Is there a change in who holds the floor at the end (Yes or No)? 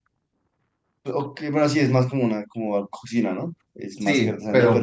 Yes